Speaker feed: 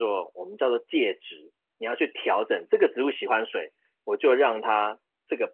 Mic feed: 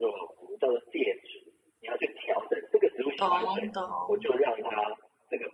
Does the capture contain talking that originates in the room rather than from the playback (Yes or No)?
Yes